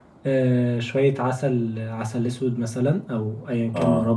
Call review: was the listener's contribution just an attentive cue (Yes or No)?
Yes